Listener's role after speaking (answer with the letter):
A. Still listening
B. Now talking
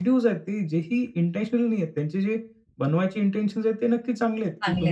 A